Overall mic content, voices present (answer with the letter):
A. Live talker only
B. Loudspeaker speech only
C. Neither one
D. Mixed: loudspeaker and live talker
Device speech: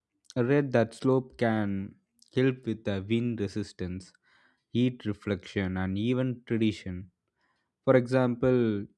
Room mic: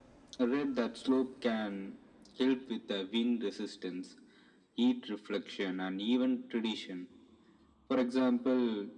B